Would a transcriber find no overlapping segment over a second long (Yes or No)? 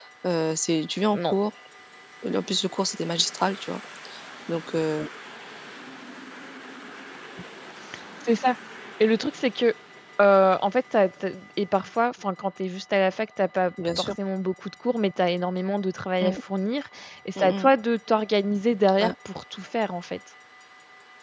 Yes